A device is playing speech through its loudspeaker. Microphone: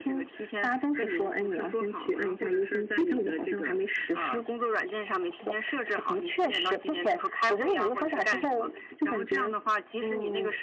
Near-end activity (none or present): none